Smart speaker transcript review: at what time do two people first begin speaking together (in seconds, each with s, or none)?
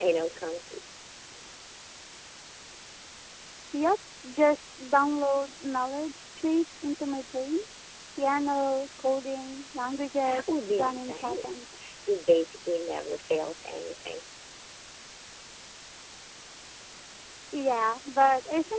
10.2 s